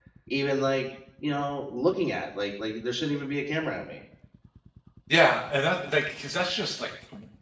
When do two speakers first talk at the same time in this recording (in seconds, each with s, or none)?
none